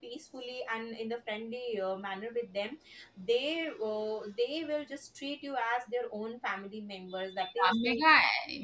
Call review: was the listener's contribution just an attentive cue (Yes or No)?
No